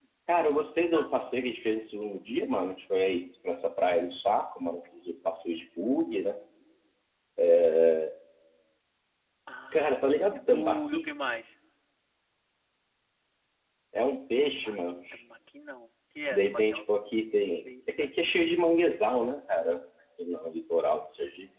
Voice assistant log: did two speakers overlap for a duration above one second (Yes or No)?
Yes